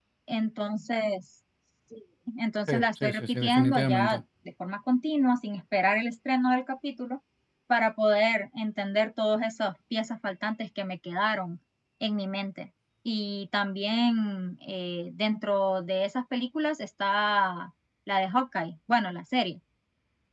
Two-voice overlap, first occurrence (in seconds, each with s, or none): 2.7 s